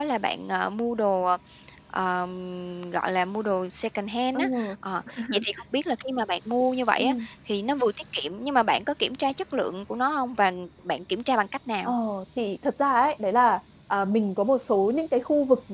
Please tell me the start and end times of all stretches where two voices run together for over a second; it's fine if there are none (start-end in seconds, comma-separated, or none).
none